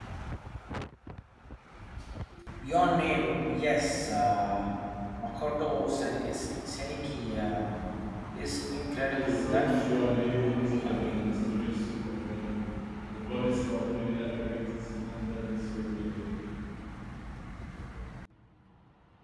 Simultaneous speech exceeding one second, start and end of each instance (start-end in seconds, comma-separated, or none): 9.1-11.3